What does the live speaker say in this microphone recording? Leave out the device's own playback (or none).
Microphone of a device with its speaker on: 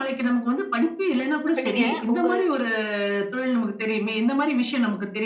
இப்ப நீங்க உங்க